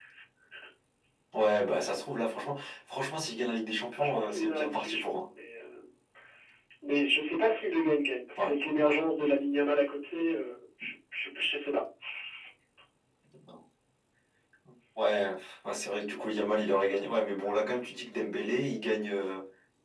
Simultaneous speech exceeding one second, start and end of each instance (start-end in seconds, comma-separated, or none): 4.0-5.2